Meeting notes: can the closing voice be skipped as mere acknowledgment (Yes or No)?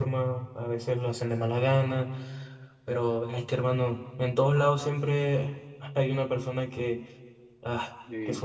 Yes